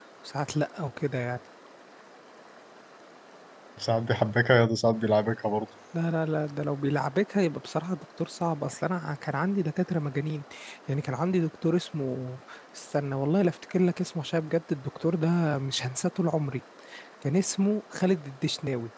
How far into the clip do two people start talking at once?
none

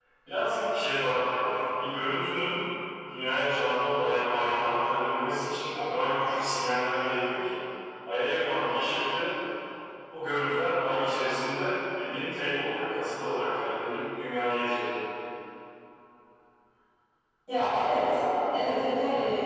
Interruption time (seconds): none

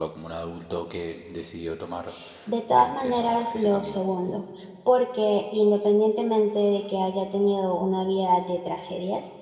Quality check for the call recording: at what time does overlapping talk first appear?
2.7 s

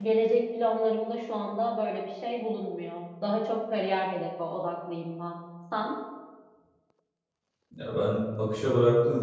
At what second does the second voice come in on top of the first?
none

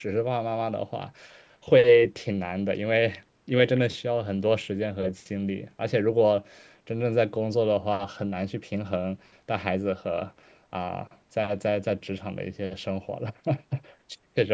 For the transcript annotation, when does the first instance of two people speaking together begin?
none

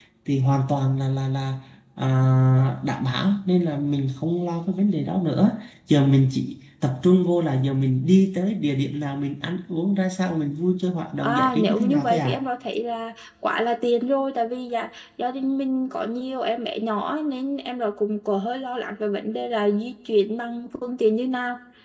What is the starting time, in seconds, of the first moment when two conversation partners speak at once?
11.2 s

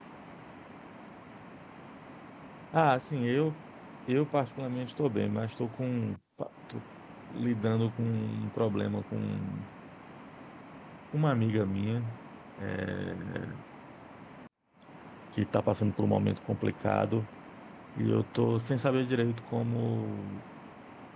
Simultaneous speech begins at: none

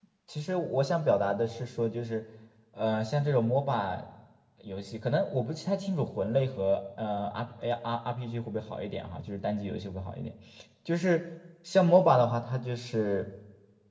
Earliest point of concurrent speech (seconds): none

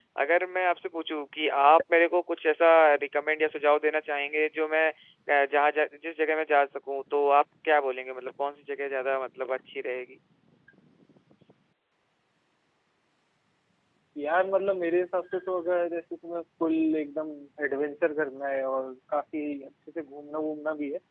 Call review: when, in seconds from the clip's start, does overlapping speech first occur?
none

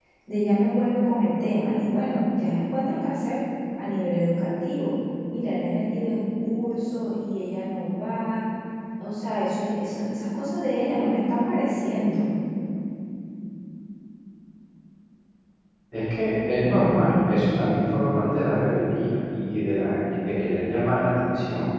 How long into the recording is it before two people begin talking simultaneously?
none

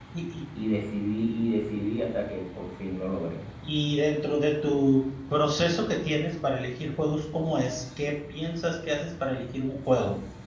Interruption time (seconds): none

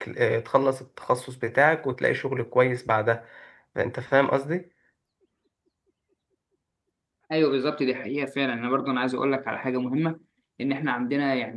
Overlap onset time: none

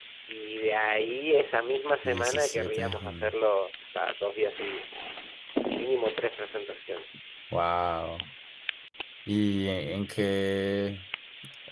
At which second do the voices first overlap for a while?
2.0 s

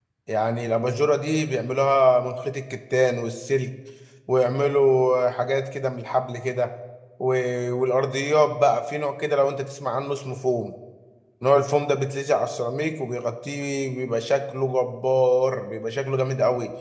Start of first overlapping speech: none

